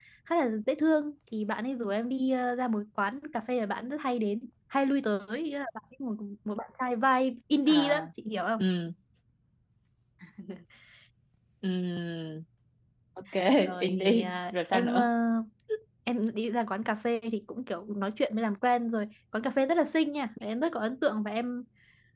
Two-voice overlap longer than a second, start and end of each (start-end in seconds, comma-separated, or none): 13.8-15.1